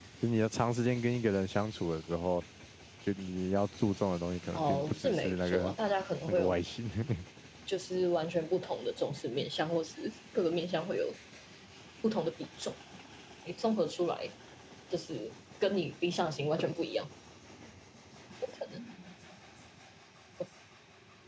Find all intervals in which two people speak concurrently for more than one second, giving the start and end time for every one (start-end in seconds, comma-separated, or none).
4.5-5.7